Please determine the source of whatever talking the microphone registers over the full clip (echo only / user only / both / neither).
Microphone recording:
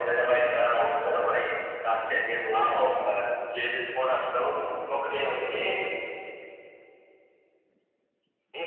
echo only